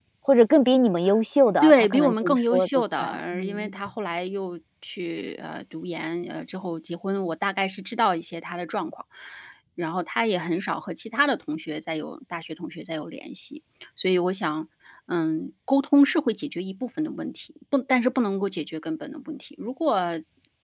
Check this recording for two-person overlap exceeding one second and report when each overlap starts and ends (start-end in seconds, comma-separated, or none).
1.6-3.7